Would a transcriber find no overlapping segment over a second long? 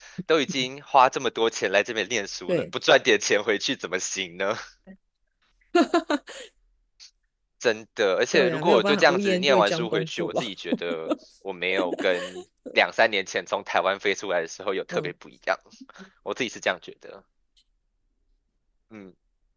No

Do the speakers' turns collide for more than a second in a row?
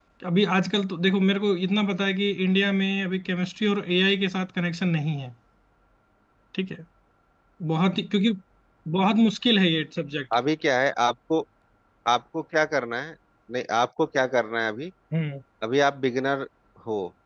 No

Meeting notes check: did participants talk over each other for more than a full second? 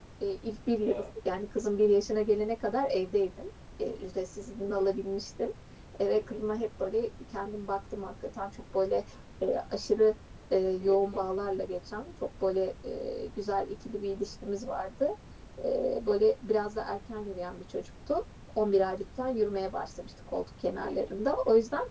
No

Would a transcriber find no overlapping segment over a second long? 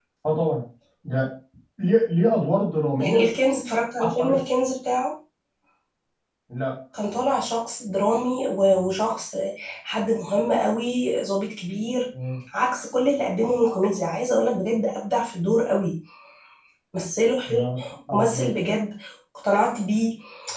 Yes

